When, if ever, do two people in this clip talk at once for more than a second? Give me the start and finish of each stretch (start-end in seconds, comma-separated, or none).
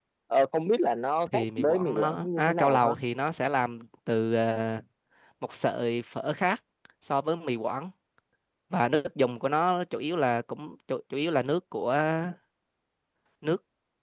1.3-2.9